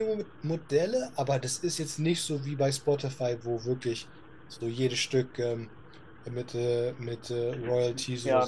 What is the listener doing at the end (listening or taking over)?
taking over